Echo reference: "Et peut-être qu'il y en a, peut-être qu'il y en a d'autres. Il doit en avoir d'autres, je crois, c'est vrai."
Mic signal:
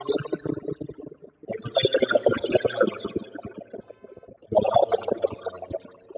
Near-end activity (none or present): none